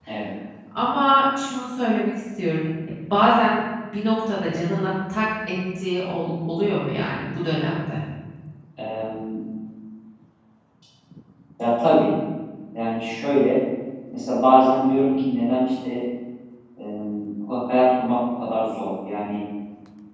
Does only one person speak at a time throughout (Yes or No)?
Yes